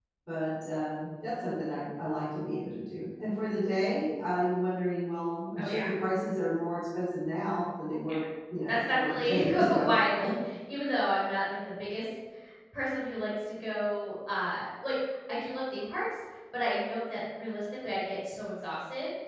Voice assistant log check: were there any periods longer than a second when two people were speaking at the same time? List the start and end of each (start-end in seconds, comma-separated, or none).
8.7-10.0